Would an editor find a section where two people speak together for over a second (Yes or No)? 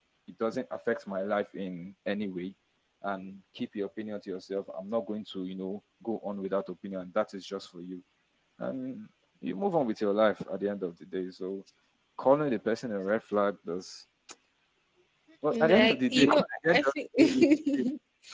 Yes